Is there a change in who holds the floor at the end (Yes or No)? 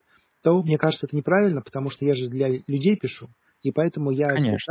No